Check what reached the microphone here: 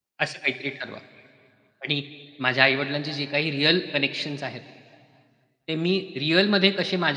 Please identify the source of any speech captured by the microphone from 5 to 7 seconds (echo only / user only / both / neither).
user only